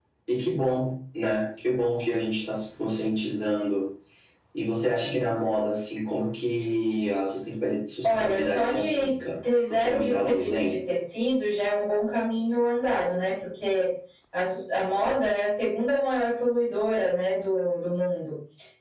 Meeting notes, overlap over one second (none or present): present